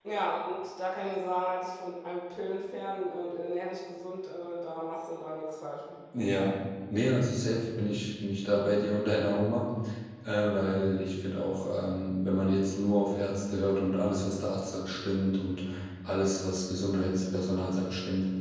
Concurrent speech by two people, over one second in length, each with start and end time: none

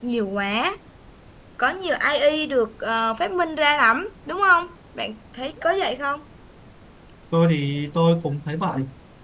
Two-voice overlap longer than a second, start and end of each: none

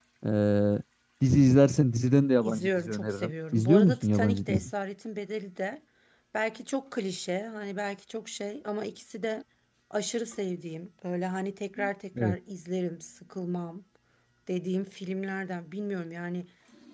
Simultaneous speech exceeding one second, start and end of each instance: 2.4-4.7

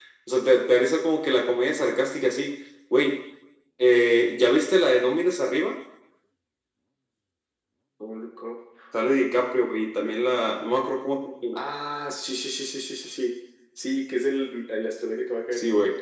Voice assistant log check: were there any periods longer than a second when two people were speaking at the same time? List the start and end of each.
none

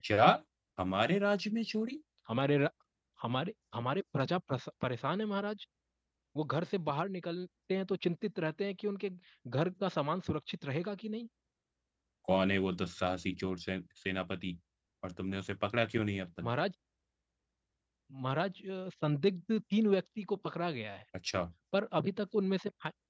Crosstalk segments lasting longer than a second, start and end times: none

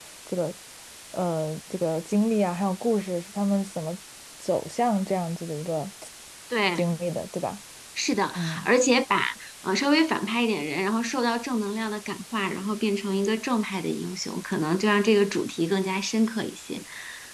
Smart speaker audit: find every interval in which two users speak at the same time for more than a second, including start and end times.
none

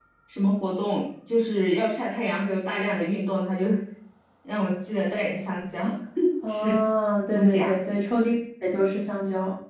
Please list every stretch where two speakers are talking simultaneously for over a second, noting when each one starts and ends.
none

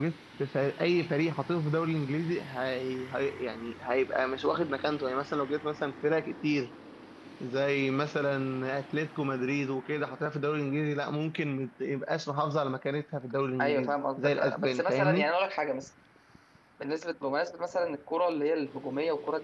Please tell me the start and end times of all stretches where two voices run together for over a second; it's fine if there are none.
13.6-15.3

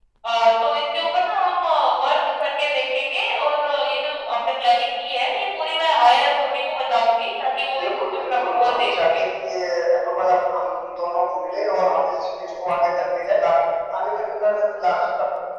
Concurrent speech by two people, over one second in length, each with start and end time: 7.8-9.2

